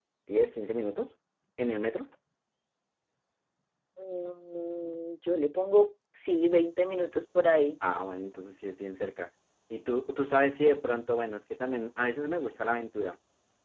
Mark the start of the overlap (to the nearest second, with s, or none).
none